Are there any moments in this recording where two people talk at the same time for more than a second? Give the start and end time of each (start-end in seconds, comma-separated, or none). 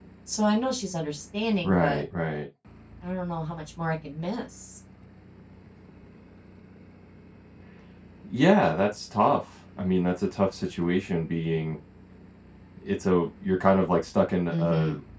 none